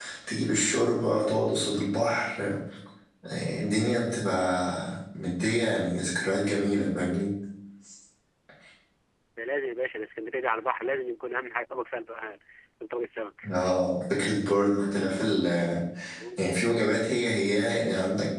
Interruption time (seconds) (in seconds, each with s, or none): none